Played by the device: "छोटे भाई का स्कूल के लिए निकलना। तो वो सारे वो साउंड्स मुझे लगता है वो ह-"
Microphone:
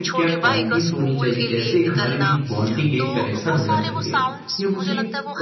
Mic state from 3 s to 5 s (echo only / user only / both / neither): both